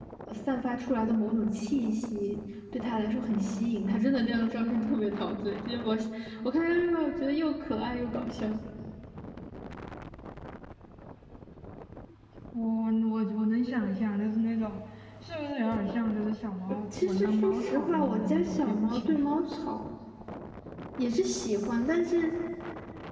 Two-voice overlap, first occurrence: 16.7 s

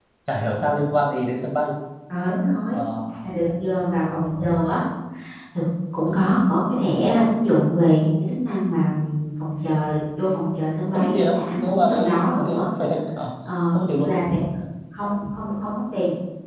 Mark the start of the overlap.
10.9 s

